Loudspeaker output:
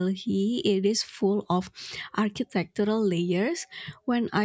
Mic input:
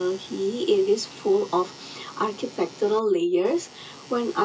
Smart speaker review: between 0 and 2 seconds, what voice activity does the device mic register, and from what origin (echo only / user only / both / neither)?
echo only